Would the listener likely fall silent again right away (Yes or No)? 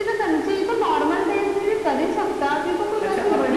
No